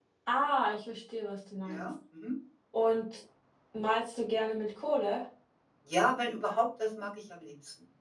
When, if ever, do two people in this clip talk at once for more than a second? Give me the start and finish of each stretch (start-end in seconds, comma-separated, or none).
none